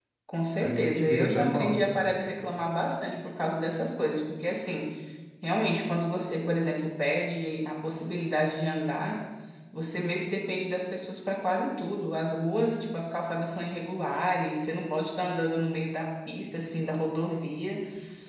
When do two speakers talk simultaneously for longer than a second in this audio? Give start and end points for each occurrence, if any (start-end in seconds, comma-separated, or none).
0.6-2.2